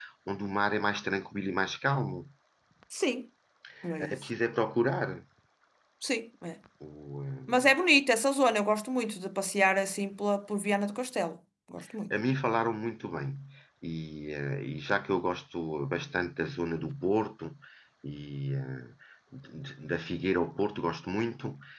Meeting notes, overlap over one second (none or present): none